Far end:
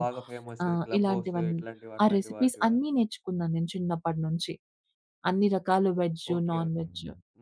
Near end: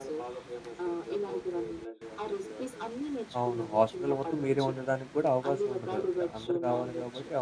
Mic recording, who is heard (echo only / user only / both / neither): both